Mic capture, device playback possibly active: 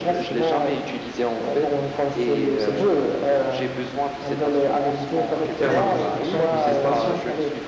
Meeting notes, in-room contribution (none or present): present